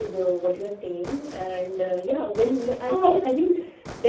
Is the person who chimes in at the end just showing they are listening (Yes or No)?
Yes